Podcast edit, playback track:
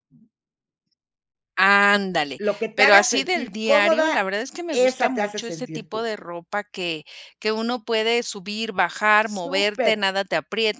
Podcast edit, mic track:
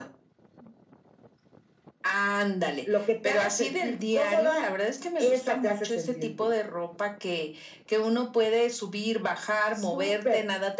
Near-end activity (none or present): none